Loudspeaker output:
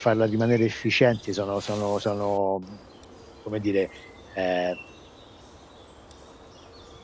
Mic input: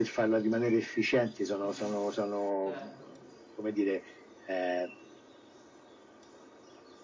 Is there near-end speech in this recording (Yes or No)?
Yes